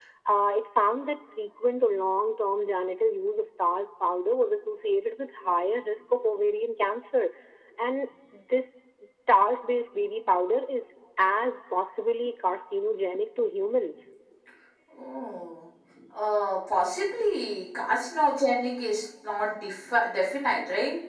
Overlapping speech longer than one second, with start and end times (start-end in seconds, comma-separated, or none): none